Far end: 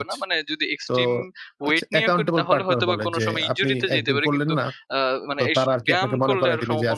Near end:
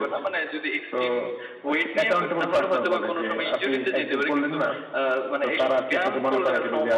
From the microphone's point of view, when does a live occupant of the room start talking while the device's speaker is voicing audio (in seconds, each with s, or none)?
none